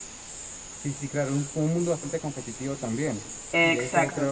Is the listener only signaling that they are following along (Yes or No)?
Yes